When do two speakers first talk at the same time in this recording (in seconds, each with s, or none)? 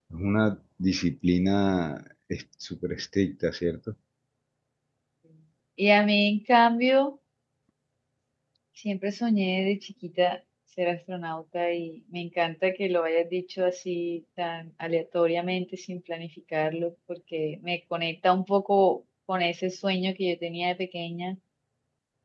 none